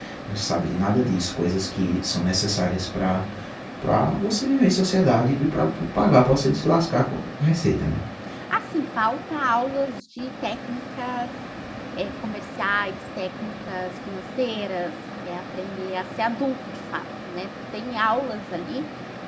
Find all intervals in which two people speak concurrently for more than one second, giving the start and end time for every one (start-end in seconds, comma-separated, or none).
none